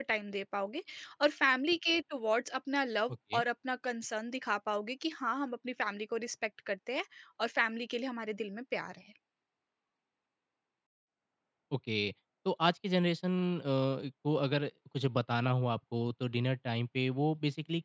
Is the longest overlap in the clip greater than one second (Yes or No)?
No